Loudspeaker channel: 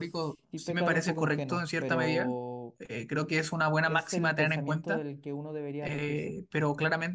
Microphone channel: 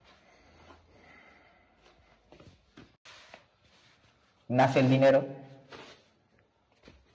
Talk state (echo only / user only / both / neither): user only